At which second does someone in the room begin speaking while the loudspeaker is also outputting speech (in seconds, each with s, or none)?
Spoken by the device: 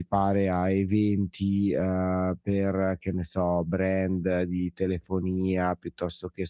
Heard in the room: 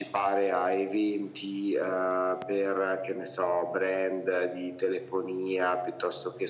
none